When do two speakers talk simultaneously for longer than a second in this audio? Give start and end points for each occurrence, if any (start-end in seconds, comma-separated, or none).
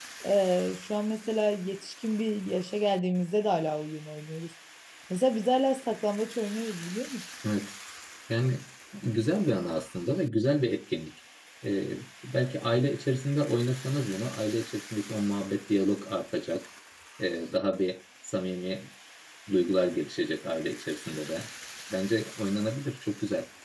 none